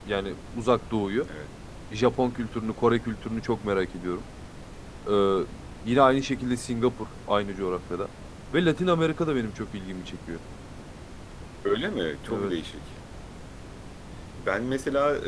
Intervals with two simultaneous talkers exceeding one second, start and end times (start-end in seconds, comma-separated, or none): none